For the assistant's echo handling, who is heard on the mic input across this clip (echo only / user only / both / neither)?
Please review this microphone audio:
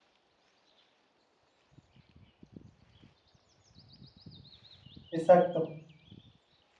user only